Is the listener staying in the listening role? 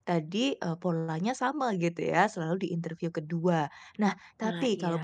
Yes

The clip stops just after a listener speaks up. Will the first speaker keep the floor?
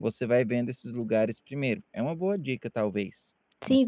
No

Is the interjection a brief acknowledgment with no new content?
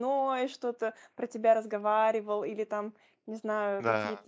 Yes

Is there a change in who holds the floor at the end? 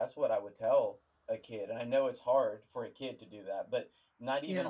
No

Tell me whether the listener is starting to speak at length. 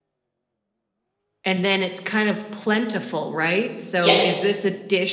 No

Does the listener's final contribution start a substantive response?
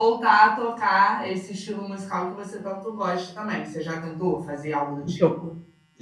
Yes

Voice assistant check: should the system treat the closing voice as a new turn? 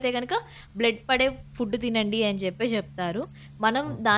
No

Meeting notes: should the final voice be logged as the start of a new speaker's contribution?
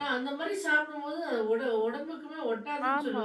Yes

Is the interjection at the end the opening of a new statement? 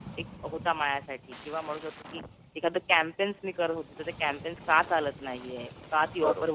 No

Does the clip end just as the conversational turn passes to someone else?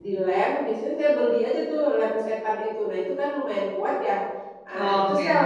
No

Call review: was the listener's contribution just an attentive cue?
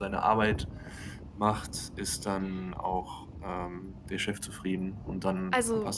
No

